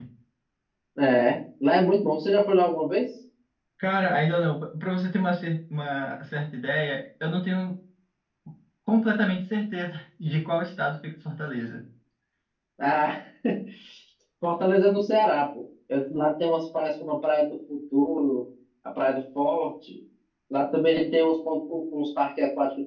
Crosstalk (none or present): none